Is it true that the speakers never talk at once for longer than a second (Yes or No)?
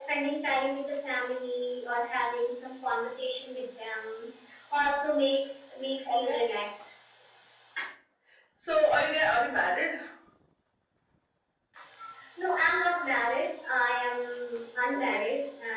Yes